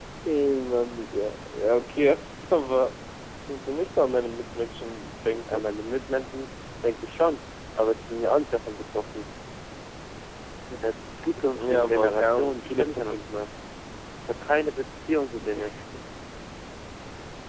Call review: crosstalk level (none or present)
present